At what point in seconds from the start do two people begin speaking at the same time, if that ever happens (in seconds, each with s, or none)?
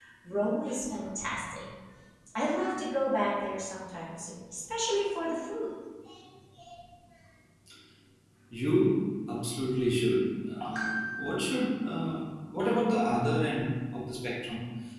none